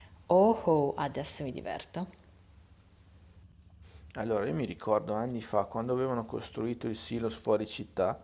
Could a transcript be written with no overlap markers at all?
Yes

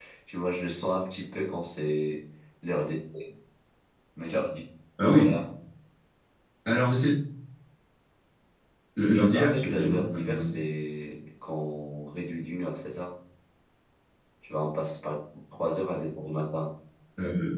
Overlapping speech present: Yes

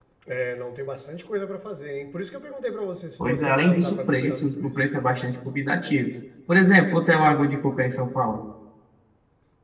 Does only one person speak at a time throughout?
No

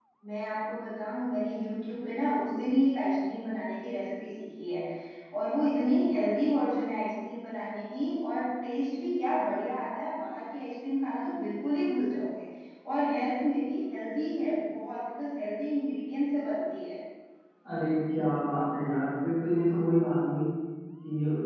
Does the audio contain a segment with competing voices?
No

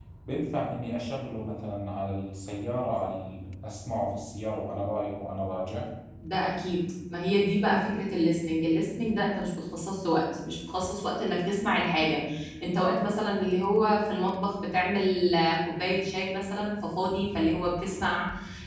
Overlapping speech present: No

